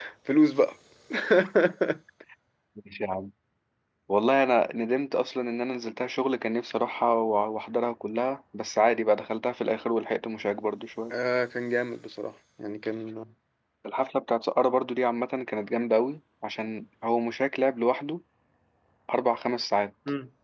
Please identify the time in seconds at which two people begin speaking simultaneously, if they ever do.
none

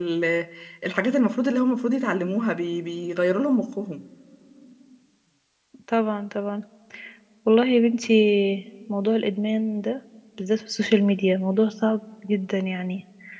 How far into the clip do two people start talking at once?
none

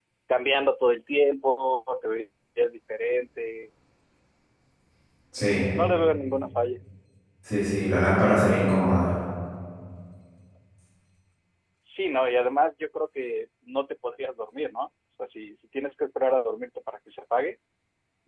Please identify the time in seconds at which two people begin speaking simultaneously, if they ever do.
none

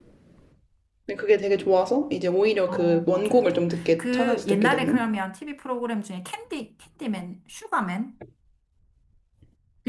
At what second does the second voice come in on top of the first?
2.7 s

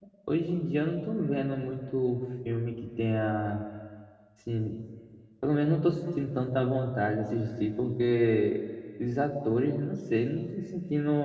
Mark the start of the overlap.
none

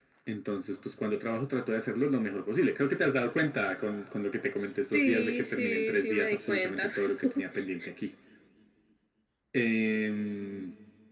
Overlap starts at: 4.5 s

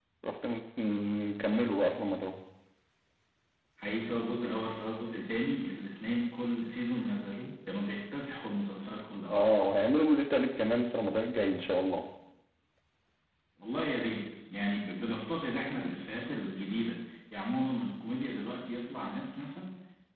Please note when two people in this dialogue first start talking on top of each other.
none

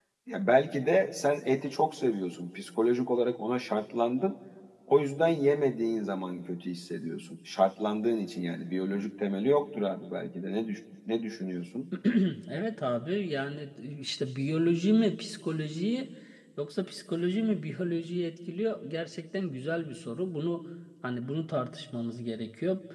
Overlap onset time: none

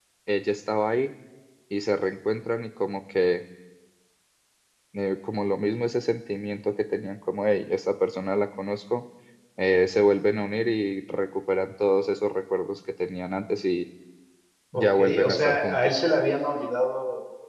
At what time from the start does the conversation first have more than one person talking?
14.7 s

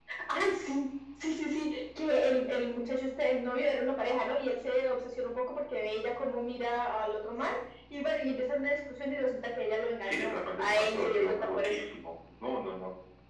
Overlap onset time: 10.0 s

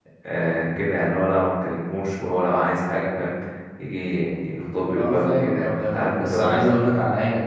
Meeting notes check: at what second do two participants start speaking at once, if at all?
5.0 s

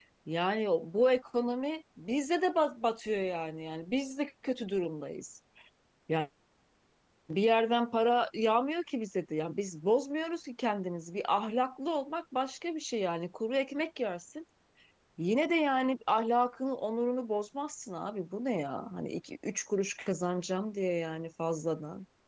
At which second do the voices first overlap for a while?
none

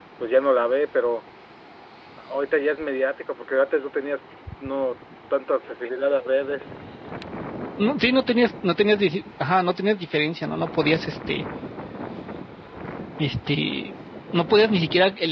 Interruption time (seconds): none

